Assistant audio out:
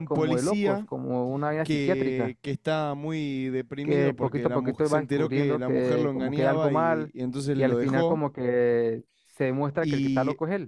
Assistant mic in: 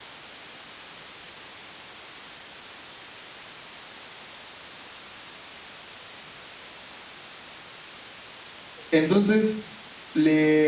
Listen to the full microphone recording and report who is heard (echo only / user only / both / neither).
user only